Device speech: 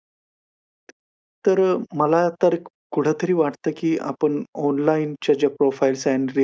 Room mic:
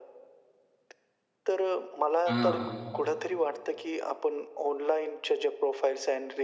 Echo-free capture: No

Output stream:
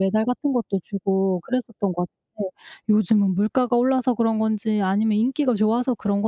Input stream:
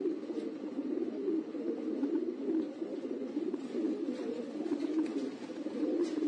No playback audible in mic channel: Yes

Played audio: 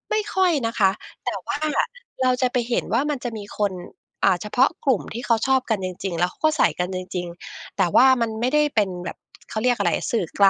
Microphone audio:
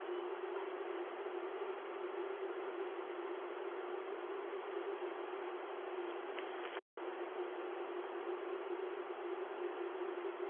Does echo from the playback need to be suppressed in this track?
No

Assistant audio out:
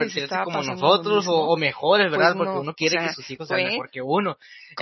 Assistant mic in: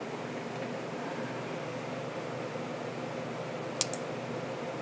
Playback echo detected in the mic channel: No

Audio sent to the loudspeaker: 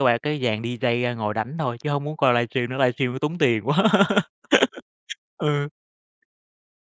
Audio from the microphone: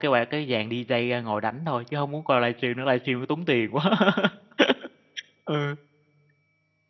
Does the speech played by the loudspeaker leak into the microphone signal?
Yes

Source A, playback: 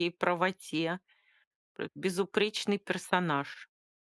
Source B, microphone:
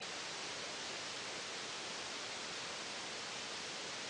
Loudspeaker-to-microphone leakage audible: No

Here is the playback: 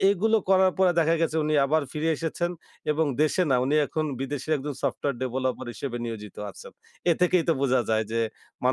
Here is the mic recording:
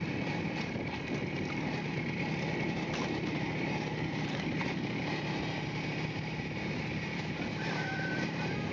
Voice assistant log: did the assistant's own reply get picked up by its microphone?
No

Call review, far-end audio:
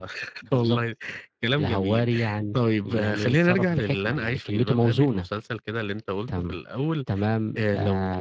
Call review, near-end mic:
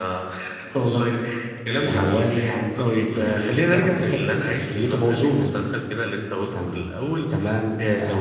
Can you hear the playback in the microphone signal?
Yes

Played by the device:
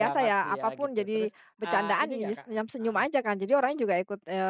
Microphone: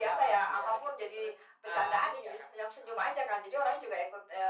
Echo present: Yes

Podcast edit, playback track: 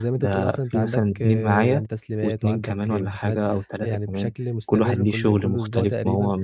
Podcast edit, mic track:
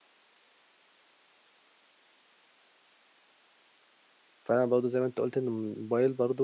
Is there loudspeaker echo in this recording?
No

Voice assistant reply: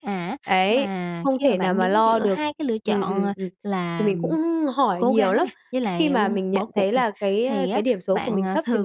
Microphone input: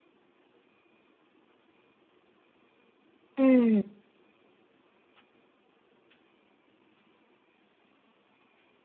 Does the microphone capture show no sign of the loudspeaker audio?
Yes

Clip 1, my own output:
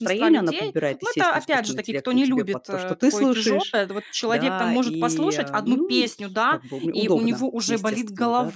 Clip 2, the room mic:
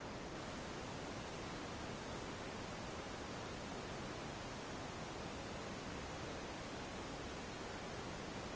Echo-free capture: Yes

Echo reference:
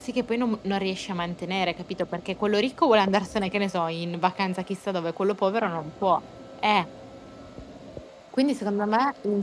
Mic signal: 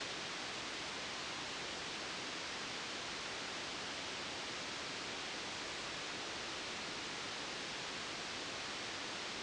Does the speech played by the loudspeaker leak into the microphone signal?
No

